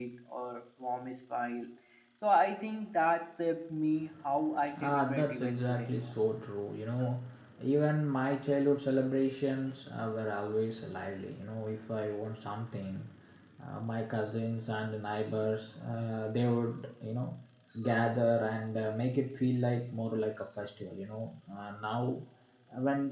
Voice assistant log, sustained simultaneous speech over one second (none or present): present